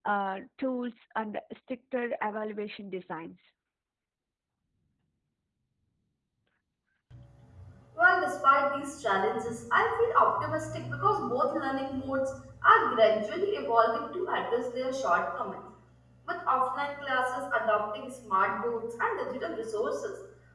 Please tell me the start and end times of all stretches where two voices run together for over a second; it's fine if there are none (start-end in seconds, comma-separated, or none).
none